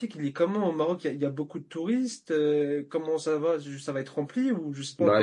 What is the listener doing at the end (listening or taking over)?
taking over